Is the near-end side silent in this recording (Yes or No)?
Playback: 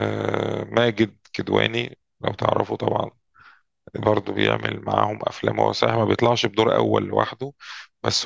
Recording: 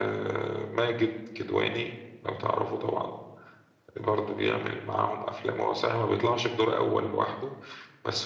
Yes